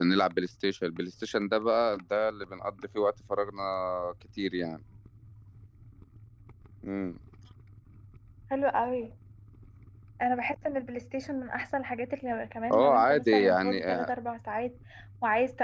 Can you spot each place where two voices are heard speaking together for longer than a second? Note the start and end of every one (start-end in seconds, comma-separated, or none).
12.7-14.1